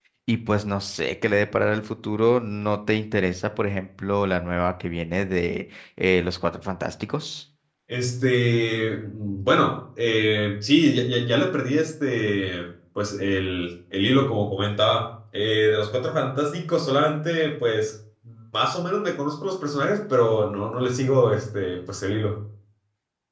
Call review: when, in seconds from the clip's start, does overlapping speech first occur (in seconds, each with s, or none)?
none